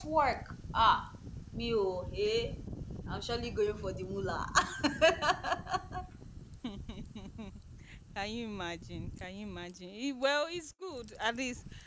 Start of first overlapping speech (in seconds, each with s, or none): none